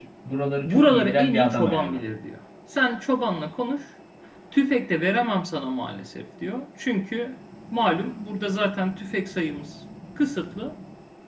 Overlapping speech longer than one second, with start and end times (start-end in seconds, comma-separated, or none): 0.6-2.1